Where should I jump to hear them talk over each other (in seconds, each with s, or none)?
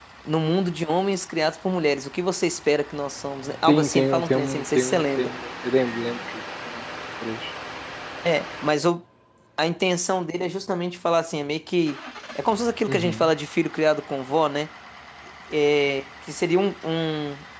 3.7 s